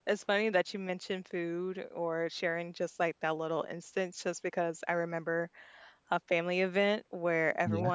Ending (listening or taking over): listening